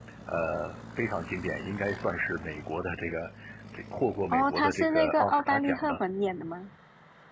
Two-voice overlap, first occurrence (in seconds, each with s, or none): 4.3 s